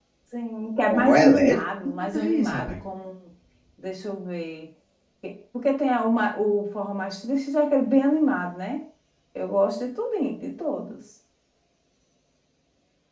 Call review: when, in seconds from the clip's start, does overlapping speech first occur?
0.8 s

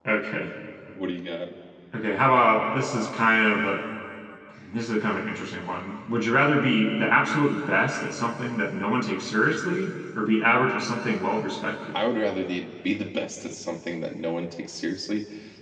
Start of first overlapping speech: none

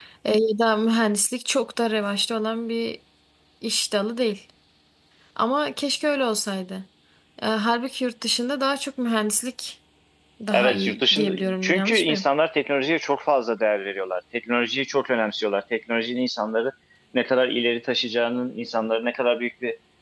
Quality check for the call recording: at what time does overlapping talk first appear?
10.5 s

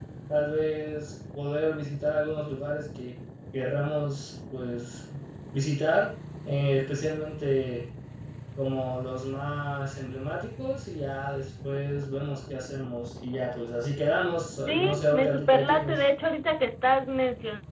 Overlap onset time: 14.7 s

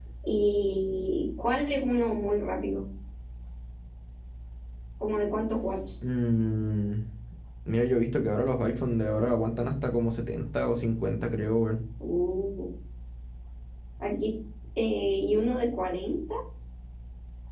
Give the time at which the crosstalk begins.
none

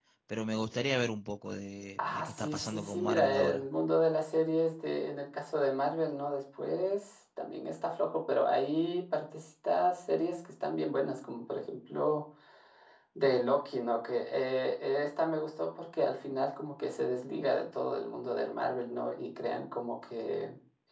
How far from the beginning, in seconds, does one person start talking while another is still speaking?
2.0 s

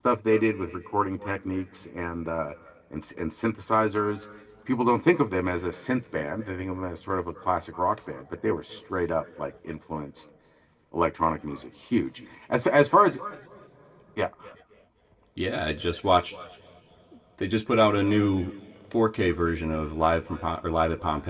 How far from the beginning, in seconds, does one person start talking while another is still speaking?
none

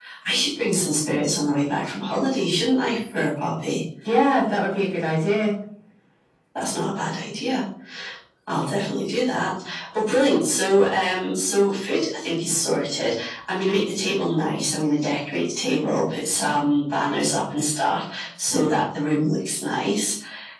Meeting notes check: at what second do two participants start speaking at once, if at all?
none

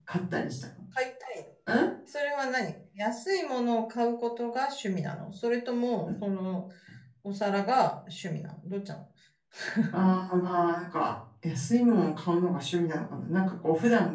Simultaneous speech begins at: none

